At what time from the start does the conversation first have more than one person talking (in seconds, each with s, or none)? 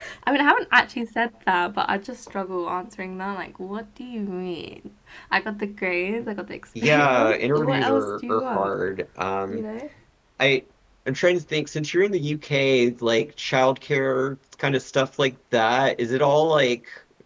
6.8 s